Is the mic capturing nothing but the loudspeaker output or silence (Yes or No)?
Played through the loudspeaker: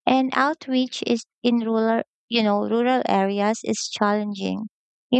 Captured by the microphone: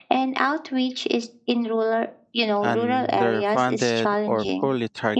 No